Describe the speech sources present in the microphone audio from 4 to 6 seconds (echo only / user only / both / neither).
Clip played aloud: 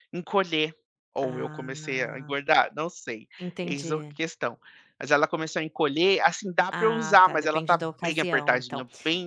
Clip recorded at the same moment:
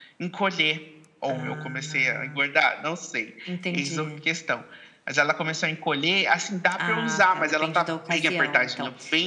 echo only